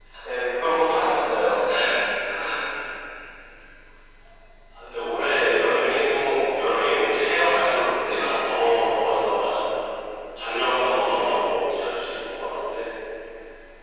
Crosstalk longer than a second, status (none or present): none